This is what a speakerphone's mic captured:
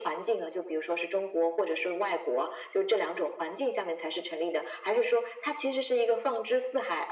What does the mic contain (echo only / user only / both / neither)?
echo only